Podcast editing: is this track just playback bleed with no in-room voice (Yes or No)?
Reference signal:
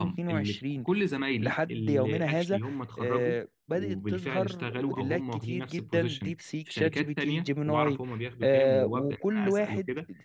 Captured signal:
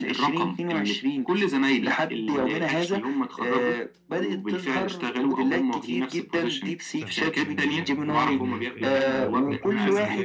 No